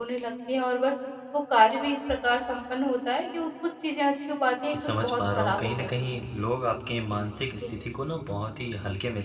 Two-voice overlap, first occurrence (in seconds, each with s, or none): 4.6 s